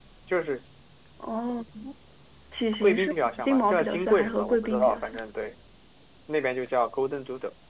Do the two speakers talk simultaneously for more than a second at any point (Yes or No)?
Yes